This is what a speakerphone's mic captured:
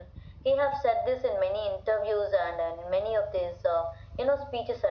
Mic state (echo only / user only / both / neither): echo only